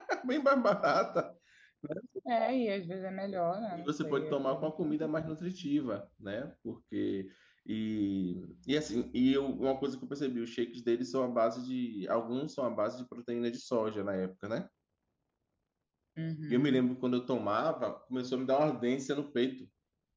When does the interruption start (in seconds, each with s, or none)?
3.7 s